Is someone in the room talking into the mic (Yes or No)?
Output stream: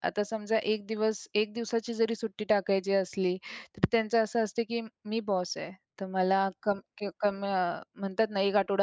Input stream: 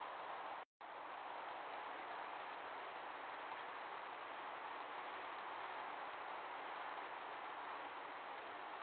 No